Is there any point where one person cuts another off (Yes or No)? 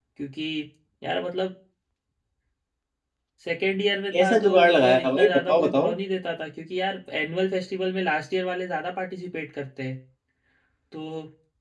Yes